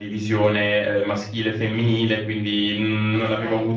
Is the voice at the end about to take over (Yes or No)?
No